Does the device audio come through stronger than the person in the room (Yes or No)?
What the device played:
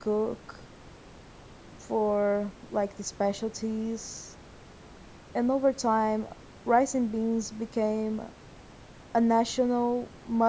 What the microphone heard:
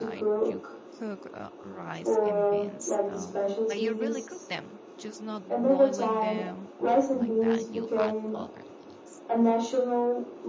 Yes